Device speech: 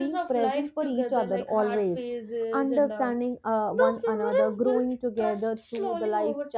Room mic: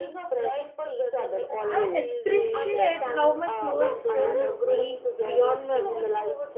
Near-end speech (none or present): present